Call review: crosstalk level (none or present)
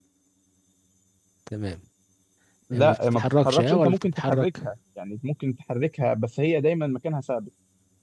present